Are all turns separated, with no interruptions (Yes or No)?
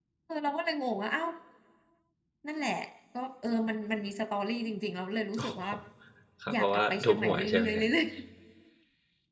No